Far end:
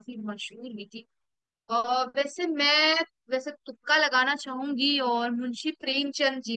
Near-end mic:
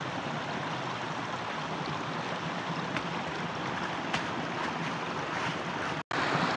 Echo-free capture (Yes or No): Yes